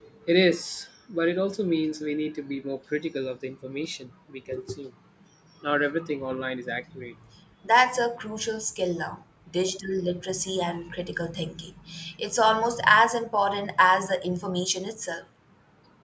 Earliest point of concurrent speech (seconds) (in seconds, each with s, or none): none